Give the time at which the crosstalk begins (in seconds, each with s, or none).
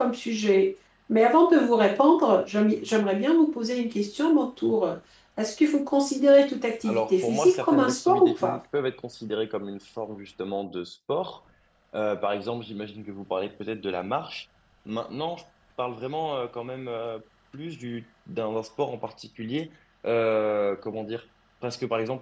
6.8 s